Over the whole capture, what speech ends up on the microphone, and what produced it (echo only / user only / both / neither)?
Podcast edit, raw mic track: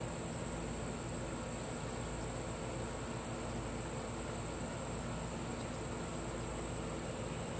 neither